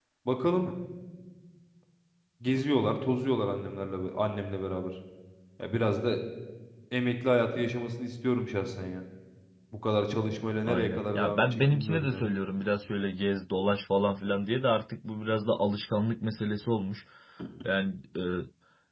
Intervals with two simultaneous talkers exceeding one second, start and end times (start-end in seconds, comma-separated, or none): 10.6-12.3